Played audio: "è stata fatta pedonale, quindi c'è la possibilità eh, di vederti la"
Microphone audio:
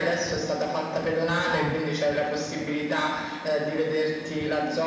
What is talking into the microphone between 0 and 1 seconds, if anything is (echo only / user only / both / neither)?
echo only